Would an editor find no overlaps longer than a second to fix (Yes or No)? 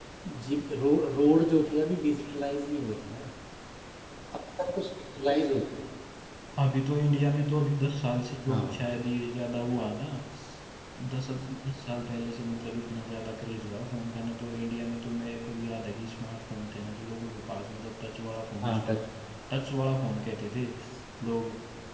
Yes